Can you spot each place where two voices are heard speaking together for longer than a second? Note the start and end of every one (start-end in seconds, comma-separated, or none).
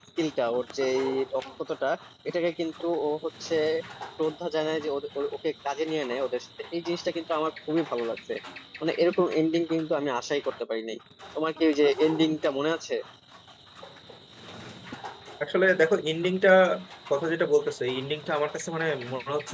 none